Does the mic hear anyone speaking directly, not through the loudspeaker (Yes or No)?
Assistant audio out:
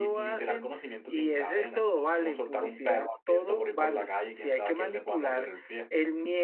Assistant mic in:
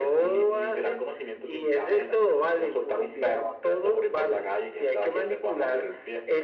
No